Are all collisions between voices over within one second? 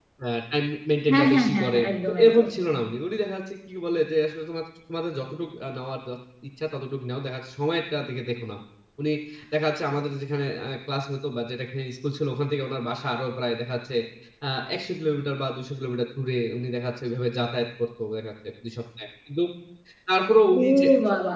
No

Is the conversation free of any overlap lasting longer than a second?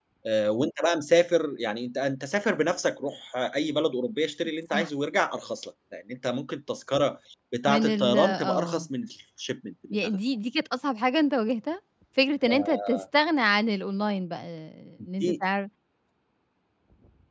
No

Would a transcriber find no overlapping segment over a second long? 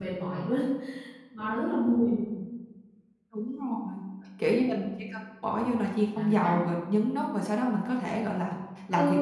Yes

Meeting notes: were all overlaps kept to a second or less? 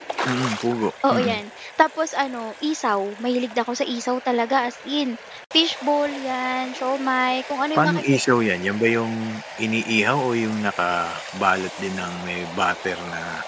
Yes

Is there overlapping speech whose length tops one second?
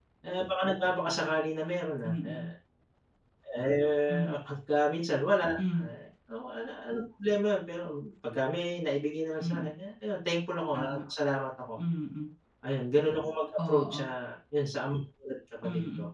No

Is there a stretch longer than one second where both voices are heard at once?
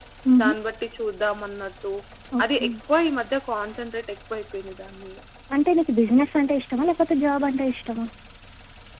No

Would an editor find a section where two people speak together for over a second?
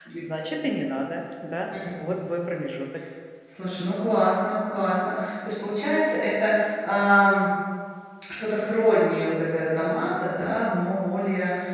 No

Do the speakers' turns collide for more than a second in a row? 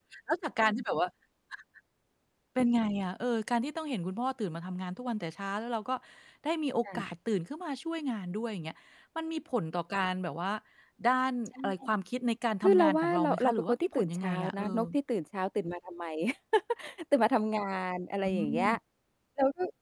Yes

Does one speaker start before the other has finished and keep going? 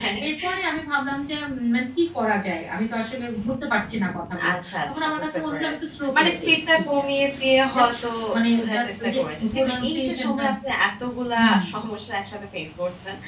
Yes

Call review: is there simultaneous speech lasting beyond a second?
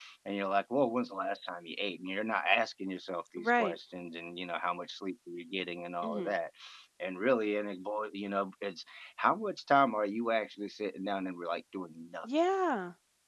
No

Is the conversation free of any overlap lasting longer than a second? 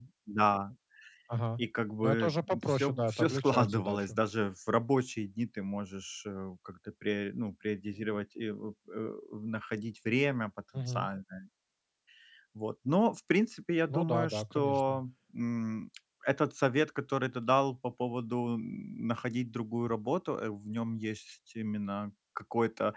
No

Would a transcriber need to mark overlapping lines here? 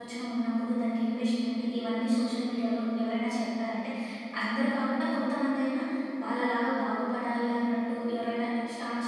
No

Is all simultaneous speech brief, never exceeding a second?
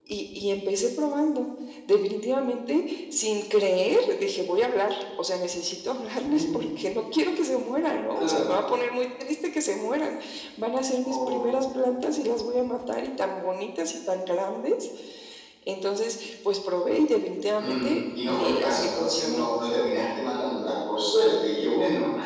No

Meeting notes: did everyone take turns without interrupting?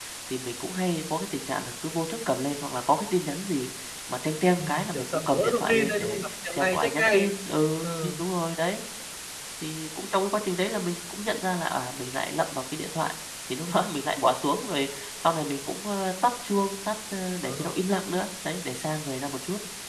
No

